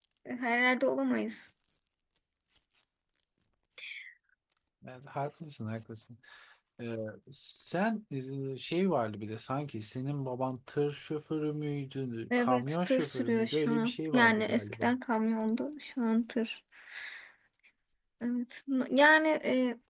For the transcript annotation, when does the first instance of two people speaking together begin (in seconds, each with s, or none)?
12.3 s